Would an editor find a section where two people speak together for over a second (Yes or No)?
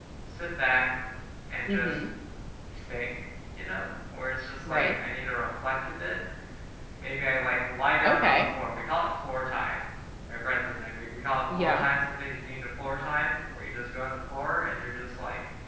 No